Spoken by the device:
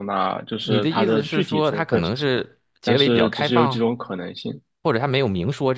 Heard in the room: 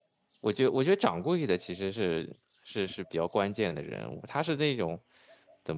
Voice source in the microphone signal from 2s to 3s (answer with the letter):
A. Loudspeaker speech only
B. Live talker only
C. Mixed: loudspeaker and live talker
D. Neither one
B